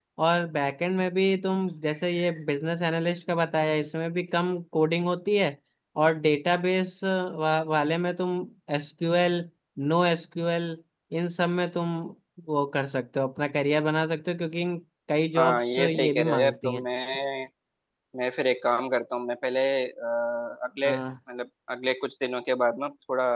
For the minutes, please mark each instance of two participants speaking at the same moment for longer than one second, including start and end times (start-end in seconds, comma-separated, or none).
15.3-16.9